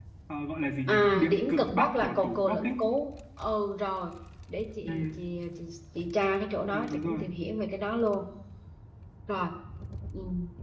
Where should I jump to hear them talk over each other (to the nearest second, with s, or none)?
1 s